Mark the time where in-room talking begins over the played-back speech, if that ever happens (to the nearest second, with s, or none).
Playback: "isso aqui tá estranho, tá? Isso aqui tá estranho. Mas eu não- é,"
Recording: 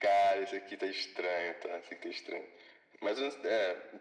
none